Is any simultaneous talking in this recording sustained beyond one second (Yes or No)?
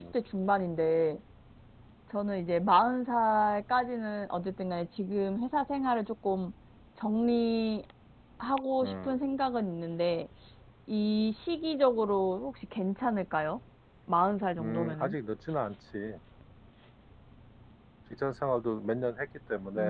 No